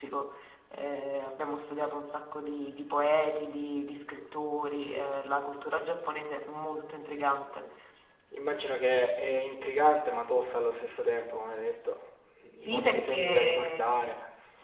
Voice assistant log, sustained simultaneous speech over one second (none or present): present